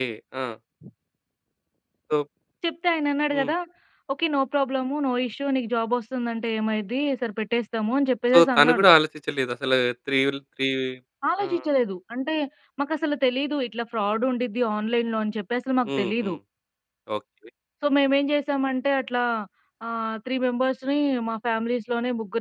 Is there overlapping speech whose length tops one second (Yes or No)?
No